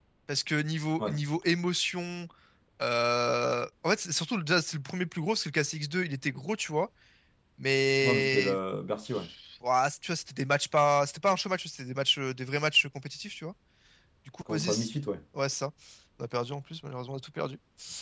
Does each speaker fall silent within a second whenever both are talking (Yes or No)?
Yes